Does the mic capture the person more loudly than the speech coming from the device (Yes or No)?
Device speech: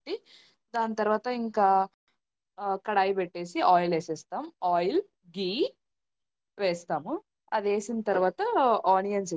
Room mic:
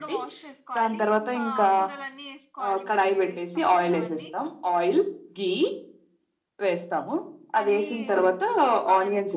No